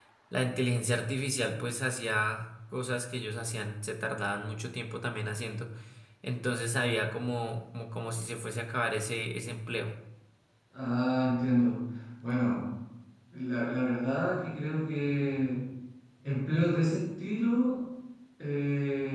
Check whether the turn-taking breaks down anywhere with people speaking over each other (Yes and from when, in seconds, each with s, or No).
No